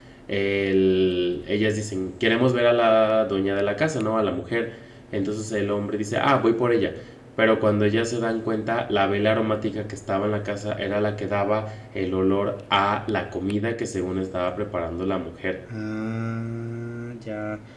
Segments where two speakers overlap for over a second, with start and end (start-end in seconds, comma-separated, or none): none